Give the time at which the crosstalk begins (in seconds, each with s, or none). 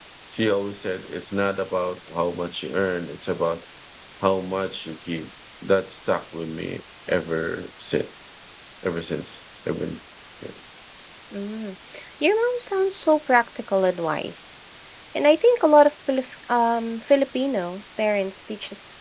none